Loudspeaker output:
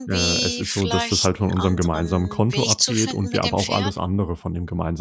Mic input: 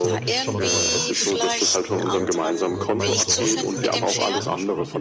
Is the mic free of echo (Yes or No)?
No